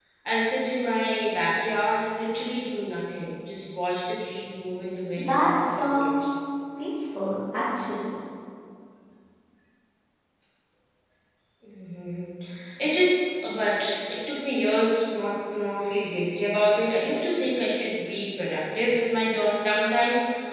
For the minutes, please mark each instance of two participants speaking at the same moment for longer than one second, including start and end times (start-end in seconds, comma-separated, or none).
5.2-6.4